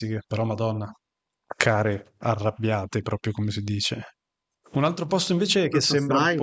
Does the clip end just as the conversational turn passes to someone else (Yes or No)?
No